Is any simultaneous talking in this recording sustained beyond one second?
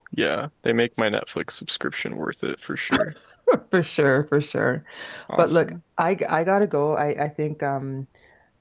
No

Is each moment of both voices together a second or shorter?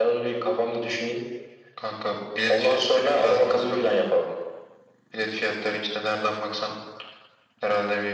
No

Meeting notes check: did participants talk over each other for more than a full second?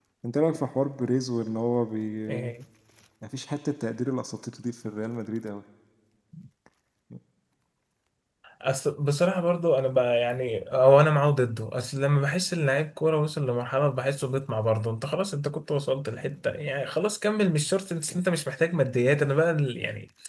No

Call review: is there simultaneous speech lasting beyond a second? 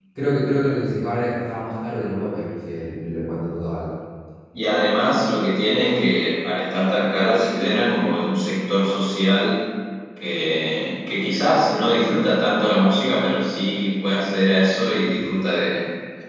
No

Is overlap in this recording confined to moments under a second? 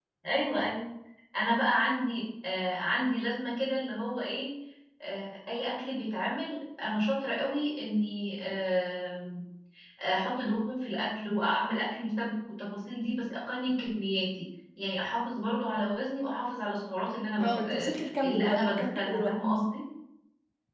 No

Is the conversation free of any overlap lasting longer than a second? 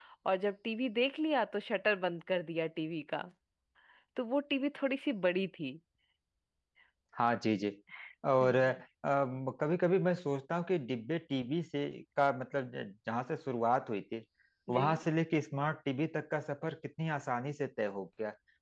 Yes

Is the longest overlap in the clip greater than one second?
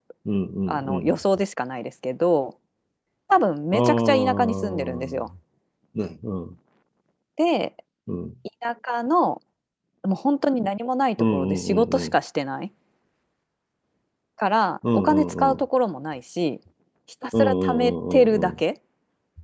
Yes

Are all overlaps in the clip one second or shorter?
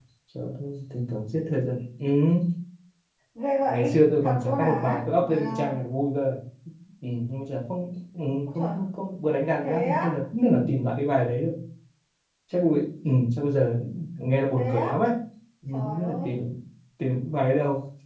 No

